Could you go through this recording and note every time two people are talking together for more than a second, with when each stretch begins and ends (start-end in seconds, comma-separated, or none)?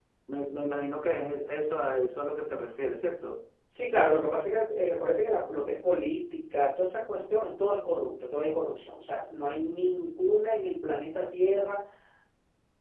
none